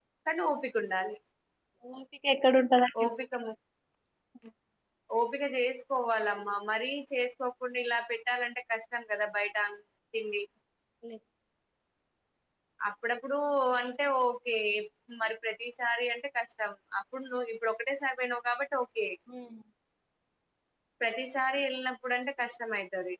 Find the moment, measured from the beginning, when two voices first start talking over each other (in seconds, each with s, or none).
none